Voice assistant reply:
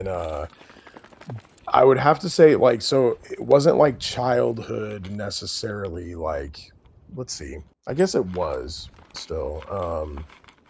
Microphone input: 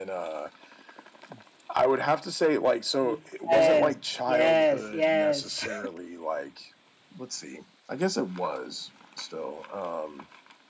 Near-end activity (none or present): present